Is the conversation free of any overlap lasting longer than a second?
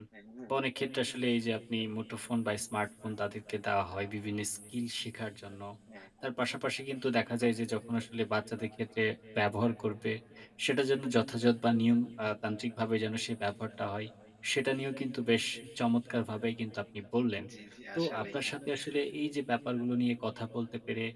Yes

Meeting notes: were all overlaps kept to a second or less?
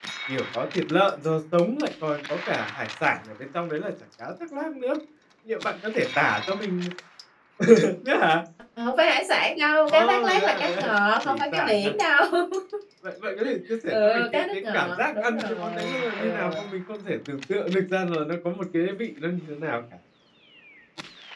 No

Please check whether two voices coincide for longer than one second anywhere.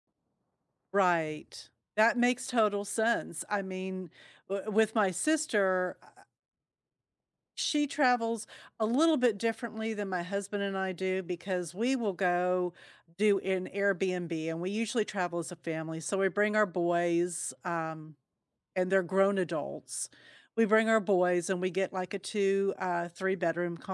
No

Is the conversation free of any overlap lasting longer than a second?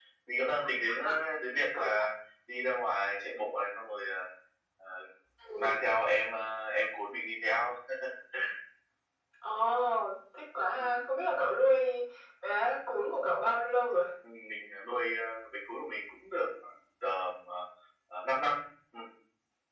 Yes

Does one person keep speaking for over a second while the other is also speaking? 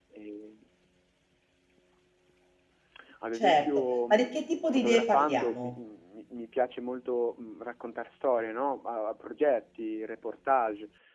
Yes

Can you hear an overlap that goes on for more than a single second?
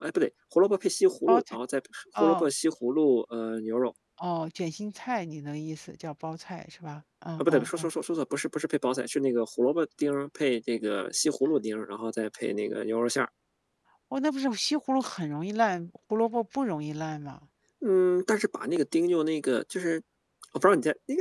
No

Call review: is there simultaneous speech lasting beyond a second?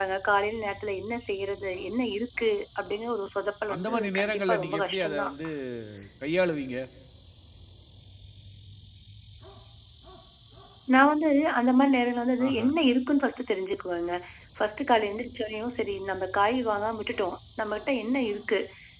Yes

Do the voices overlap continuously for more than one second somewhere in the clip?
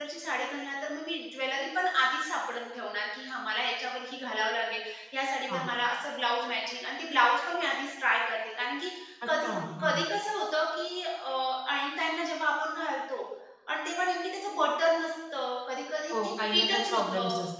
Yes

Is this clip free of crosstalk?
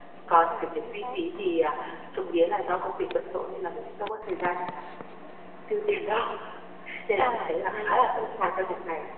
No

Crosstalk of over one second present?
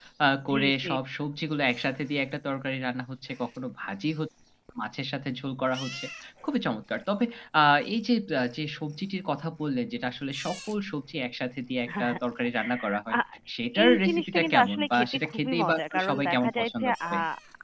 Yes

